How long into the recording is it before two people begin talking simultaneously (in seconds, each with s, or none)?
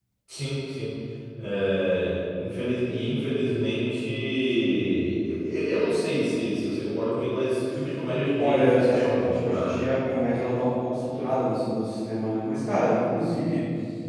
8.4 s